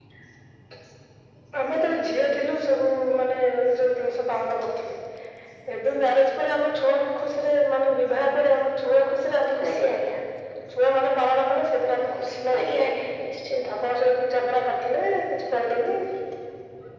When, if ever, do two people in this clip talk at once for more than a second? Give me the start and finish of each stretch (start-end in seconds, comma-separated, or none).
none